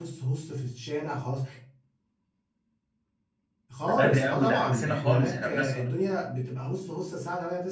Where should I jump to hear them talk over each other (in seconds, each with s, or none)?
3.9 s